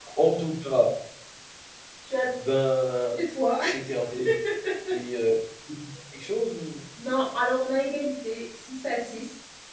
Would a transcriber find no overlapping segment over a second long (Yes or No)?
Yes